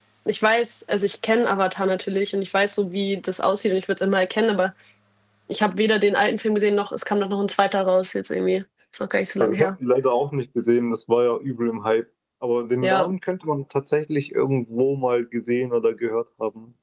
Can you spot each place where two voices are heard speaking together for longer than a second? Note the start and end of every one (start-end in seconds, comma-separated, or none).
none